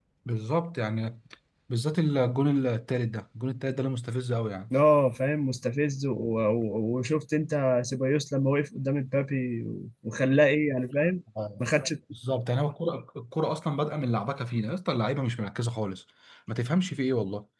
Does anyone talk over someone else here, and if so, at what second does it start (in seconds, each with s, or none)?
none